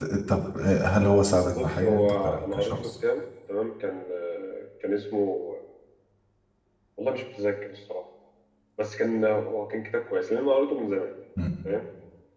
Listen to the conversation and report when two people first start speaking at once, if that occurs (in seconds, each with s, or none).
1.6 s